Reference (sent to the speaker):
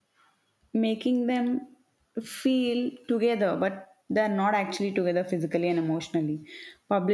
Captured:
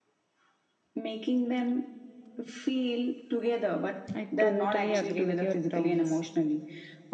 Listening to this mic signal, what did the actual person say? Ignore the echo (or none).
I totally agree with your terms.